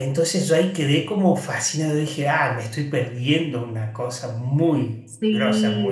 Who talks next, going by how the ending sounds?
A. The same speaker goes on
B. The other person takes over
B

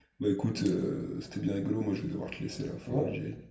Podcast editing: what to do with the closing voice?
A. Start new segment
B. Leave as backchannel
A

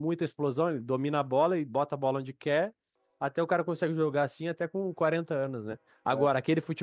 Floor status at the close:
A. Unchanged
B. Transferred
A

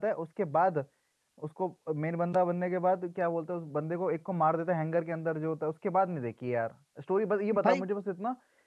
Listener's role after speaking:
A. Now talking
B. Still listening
B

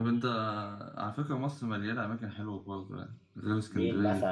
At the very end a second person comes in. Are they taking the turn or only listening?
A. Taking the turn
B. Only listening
A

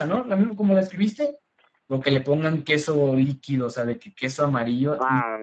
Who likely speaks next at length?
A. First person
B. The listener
B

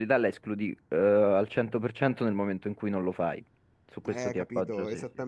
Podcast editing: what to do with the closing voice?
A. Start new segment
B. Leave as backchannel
A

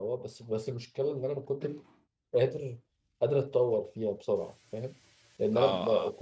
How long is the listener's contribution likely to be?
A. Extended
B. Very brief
B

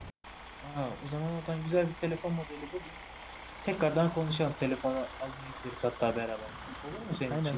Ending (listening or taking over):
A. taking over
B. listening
A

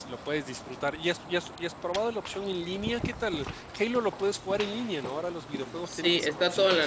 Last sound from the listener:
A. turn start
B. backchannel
A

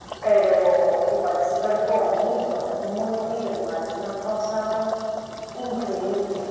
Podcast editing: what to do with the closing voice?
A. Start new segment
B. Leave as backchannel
A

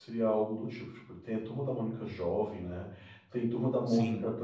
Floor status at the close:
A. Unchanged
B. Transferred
A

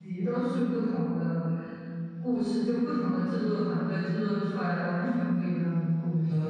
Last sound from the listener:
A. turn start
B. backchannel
A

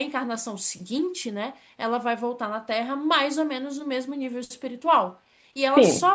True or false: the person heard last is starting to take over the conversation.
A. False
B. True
A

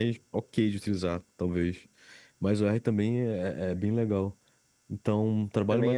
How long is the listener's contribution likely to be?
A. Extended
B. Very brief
B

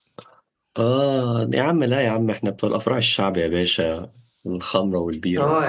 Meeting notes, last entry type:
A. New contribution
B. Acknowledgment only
A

